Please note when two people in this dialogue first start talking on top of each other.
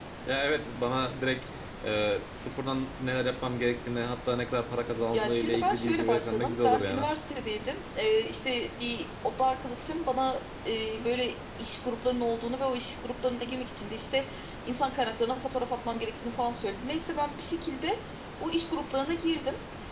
5.1 s

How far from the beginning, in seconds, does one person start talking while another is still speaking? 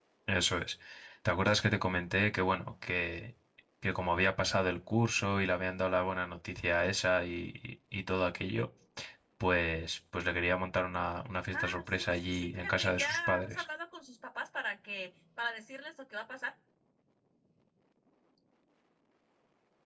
11.5 s

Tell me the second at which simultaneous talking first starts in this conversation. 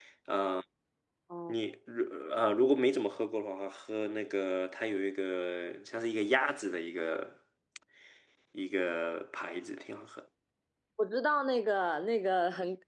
none

